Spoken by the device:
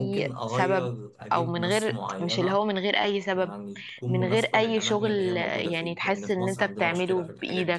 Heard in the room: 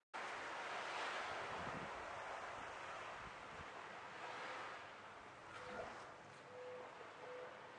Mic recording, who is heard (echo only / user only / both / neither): neither